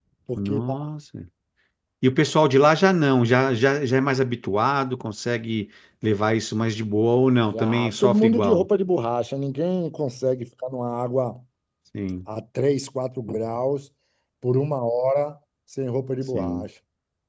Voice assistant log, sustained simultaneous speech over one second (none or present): present